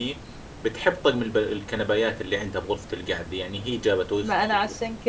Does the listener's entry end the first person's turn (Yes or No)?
Yes